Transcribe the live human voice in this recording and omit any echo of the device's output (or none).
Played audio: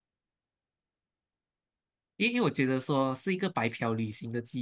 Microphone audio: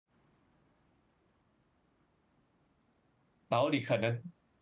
然后你可能